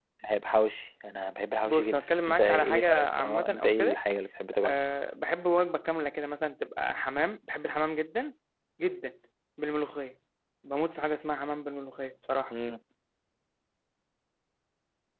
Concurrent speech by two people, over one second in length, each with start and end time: 1.6-4.0

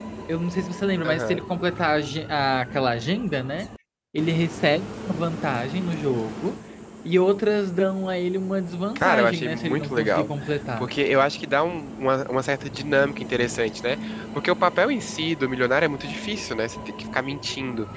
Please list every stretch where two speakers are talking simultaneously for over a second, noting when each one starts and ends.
8.9-10.3

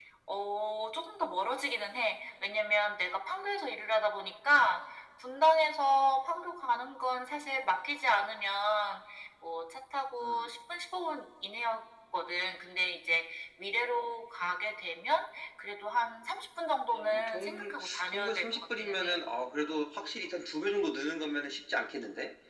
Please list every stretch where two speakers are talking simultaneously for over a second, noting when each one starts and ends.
16.9-19.2

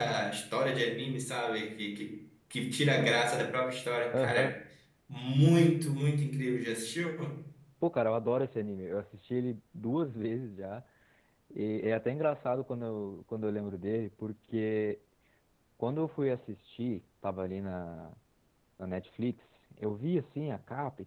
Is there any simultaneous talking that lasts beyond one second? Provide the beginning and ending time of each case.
none

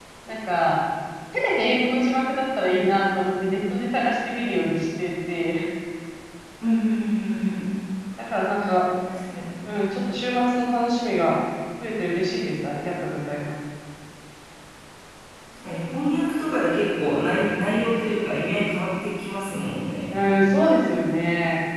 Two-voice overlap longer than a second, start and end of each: none

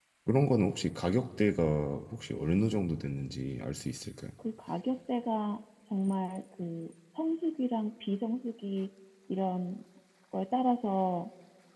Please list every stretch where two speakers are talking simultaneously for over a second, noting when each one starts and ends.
none

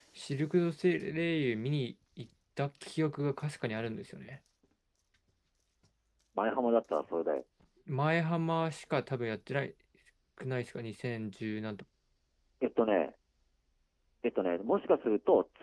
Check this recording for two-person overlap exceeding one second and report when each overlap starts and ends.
none

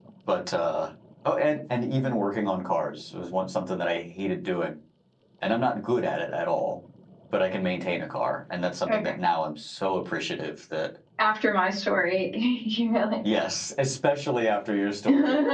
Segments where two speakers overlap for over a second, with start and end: none

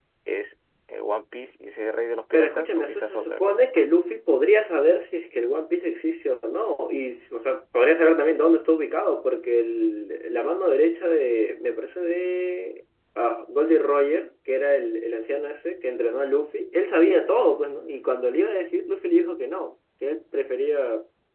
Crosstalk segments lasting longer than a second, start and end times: 2.3-3.6

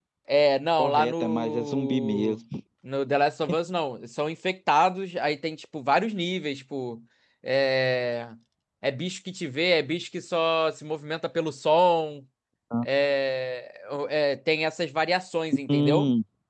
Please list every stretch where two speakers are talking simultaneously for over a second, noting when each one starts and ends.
0.8-2.4

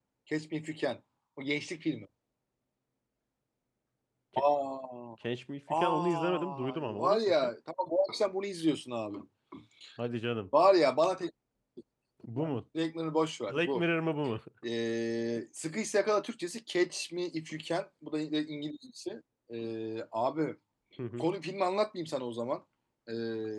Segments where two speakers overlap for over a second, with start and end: 5.7-7.5

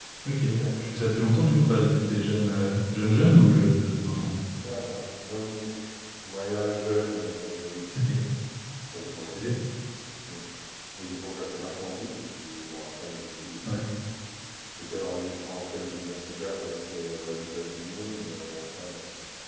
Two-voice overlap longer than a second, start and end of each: none

